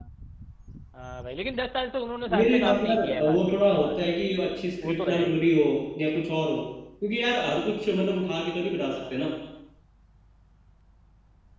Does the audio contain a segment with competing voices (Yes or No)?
Yes